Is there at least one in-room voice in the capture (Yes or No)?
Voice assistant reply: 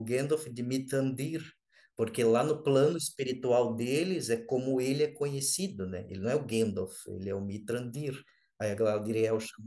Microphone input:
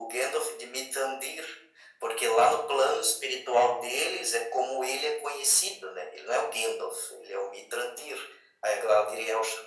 No